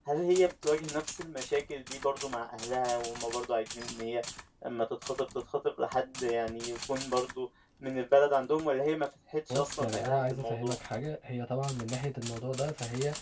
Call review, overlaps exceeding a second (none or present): present